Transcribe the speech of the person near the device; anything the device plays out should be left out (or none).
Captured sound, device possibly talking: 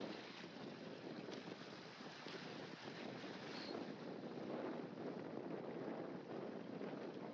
none